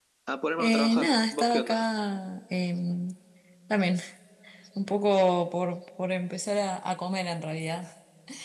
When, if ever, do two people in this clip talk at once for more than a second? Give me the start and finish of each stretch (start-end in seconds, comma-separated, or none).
0.6-1.9